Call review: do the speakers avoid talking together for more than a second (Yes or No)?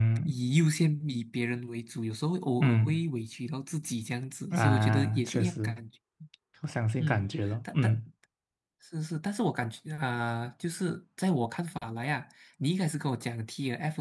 No